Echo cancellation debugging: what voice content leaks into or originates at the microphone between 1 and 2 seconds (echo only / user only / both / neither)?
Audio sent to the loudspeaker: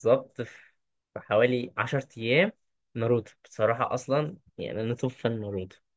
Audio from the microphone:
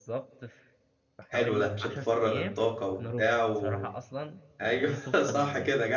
both